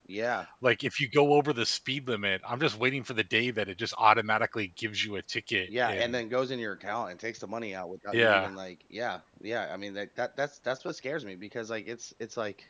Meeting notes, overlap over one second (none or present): none